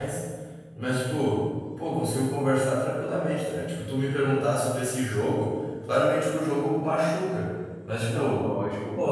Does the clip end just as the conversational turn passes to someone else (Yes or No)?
No